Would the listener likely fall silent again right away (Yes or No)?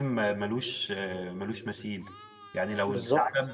Yes